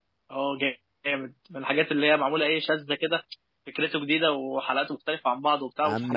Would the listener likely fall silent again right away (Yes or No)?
No